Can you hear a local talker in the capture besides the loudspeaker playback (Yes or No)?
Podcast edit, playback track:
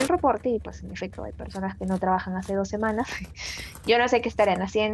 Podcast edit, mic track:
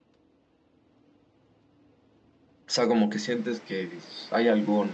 Yes